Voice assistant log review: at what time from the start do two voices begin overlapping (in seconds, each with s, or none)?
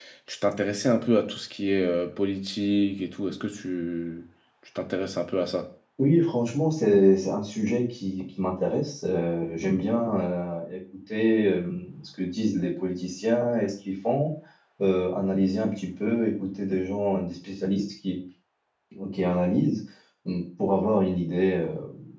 none